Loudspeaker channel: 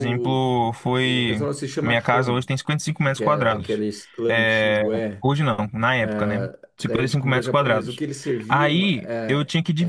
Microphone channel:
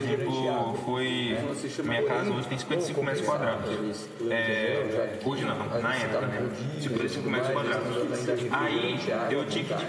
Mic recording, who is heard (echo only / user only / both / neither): both